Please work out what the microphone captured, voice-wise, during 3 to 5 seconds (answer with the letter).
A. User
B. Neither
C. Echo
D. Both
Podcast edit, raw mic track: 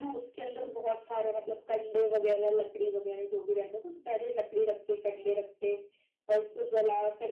C